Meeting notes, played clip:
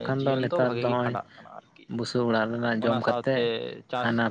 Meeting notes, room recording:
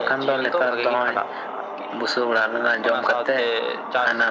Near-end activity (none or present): none